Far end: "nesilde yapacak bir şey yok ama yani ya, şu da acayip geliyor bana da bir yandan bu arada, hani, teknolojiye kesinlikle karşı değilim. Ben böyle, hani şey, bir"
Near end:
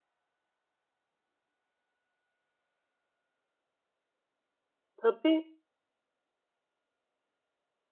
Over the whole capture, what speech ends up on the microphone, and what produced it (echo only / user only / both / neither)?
user only